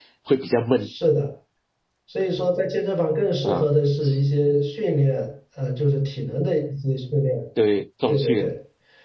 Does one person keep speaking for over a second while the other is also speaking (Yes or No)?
No